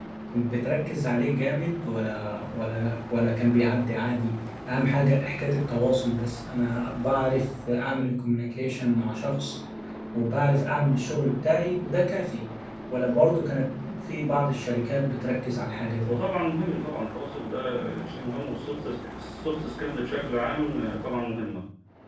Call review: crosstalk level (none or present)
none